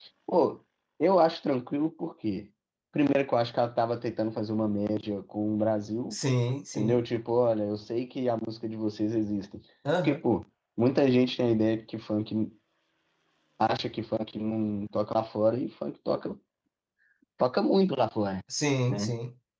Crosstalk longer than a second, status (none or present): none